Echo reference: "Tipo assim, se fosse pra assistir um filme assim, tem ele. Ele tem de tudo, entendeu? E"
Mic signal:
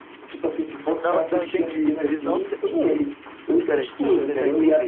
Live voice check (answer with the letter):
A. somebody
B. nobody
A